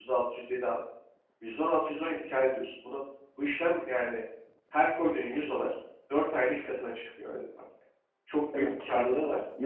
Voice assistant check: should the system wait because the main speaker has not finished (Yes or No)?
No